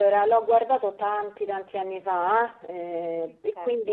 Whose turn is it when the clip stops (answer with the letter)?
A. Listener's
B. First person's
B